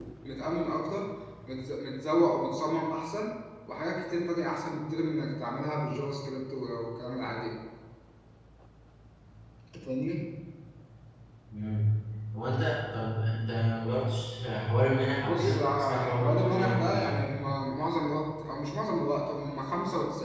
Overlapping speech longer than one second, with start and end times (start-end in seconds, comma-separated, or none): 15.3-17.2